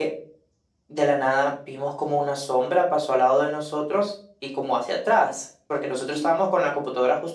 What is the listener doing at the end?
listening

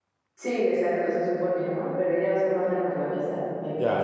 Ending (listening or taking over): taking over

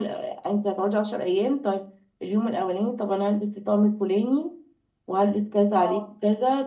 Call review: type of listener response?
listening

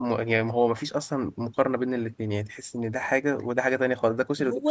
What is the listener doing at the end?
taking over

